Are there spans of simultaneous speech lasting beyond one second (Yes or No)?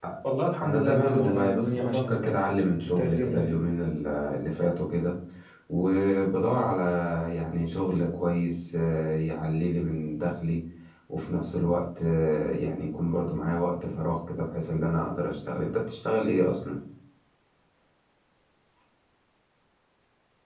Yes